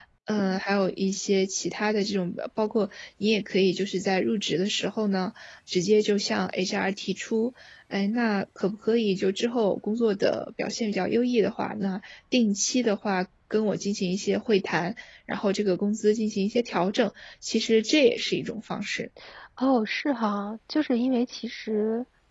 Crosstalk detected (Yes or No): No